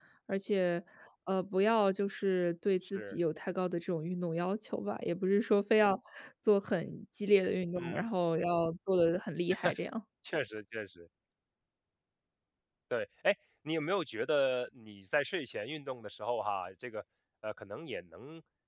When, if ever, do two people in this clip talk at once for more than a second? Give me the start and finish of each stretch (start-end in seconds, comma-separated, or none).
none